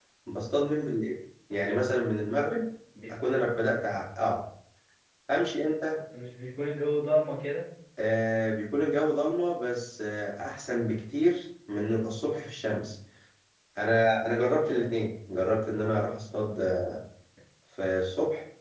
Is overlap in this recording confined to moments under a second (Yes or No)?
Yes